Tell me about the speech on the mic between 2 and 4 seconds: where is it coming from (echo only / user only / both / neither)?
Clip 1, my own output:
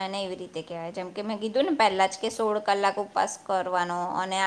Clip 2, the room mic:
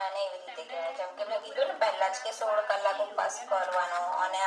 both